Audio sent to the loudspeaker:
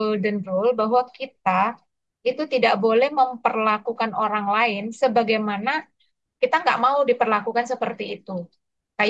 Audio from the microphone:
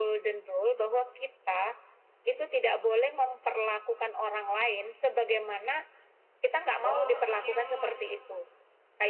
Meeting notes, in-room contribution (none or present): present